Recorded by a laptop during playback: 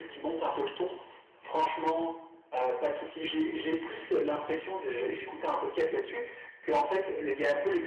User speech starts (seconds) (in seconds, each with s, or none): none